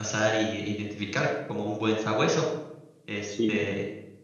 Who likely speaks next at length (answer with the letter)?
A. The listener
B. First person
B